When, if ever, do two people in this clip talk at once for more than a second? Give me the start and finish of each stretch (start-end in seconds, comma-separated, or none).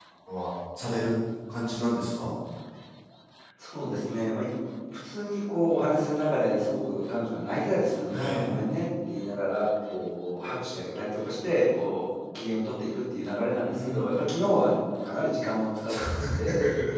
none